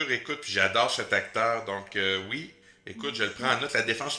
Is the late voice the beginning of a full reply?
No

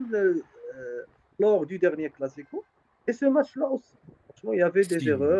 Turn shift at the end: No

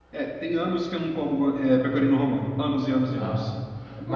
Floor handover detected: Yes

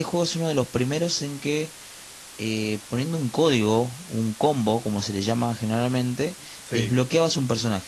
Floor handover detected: No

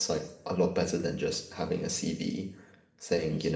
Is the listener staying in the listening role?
Yes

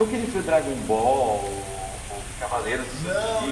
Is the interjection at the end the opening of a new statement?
Yes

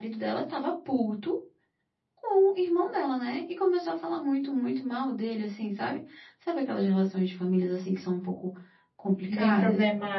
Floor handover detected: Yes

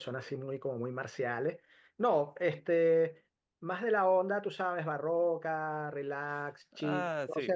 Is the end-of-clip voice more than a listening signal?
No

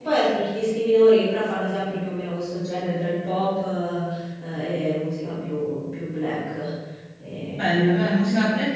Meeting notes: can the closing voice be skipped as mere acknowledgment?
No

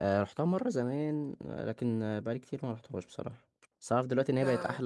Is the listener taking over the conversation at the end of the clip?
No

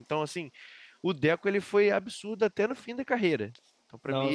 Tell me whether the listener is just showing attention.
No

